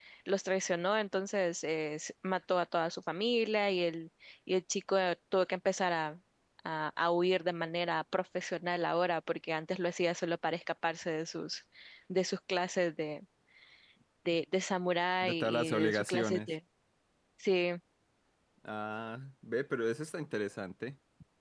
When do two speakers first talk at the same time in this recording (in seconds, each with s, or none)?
15.2 s